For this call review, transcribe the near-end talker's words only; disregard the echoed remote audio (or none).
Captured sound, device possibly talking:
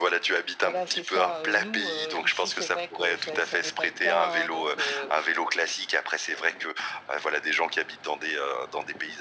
Voilà, c'est ça, heu. Nous, heu, ici, c'est vrai que ça ça n'est pas le cas, hein donc, heu